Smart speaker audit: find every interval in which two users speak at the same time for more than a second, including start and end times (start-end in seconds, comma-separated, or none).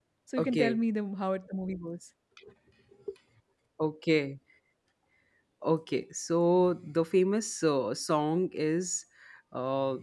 none